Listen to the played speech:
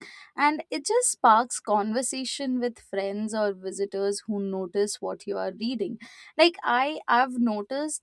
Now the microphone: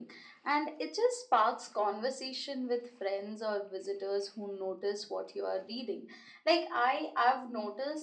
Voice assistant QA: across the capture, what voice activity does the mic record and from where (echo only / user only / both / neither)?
echo only